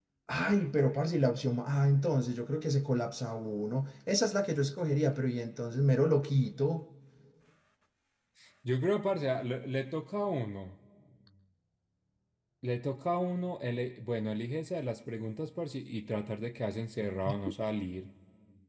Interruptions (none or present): none